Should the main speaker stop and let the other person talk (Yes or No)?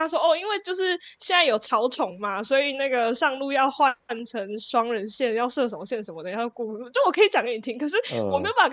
No